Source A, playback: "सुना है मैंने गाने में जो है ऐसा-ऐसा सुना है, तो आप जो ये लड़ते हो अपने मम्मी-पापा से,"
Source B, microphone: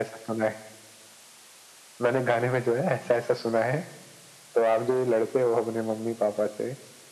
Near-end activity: none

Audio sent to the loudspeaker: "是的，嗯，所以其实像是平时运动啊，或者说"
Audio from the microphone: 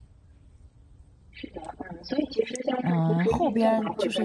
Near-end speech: present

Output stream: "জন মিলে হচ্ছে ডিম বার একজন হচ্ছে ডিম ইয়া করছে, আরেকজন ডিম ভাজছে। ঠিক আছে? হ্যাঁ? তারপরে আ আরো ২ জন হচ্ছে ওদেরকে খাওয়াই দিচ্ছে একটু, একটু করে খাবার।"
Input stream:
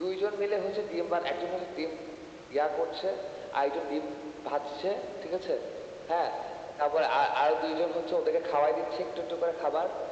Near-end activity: none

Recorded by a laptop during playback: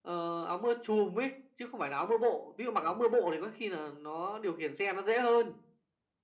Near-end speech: none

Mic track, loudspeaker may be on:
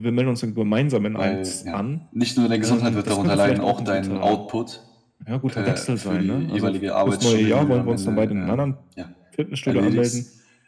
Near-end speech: present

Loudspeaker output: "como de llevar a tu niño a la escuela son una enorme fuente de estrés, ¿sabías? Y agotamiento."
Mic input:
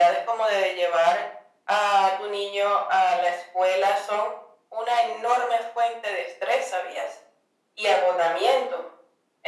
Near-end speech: none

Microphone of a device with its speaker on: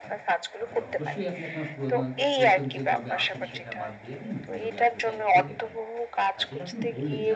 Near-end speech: present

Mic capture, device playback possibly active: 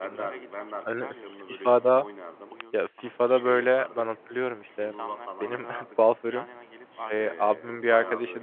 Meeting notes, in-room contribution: present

